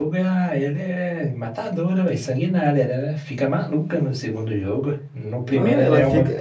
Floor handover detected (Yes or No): Yes